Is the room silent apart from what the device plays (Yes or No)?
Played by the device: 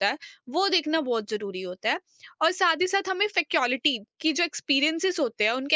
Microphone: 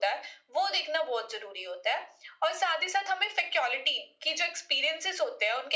Yes